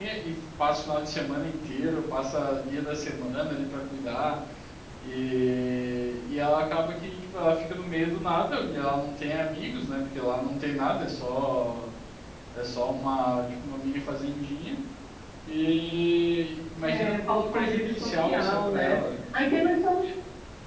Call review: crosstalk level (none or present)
present